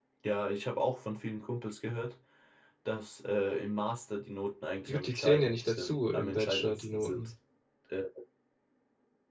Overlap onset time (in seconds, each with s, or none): 4.9 s